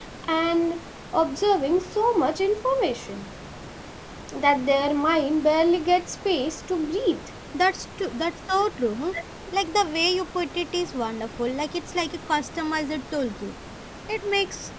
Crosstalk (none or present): none